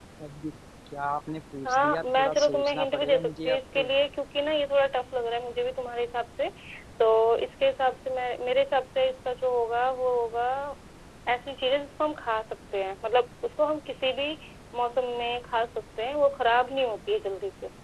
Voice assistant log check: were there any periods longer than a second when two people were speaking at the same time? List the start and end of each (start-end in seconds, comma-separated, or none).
1.7-3.9